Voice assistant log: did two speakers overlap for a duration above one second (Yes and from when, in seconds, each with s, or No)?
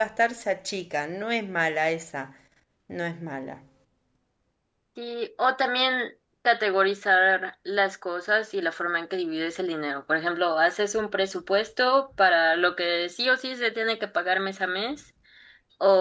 No